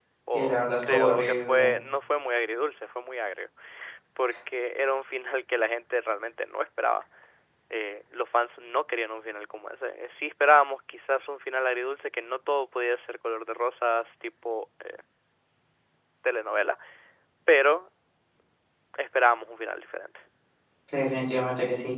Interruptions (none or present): present